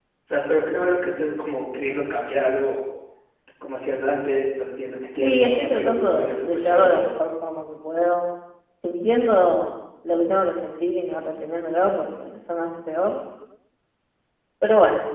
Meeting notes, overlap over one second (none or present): present